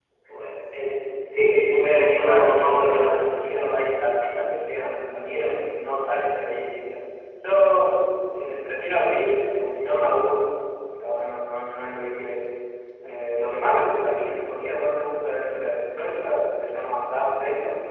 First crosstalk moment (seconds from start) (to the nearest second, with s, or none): 1 s